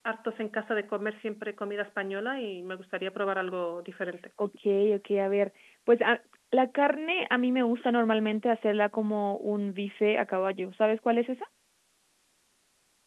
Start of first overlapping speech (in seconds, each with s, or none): none